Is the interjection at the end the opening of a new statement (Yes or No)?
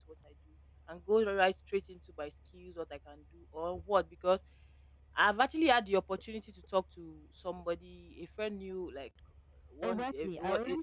Yes